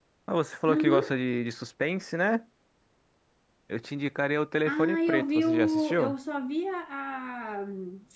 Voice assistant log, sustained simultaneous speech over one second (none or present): present